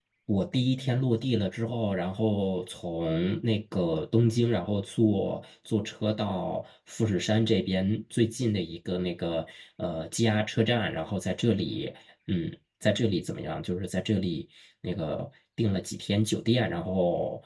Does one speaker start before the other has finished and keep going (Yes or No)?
No